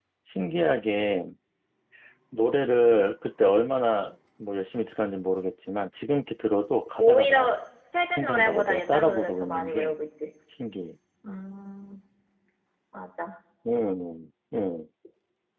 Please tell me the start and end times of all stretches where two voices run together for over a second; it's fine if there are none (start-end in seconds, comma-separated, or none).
8.2-9.9